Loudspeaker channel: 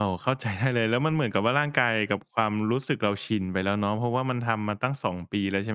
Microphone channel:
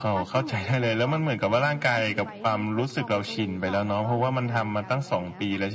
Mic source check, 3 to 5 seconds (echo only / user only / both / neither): both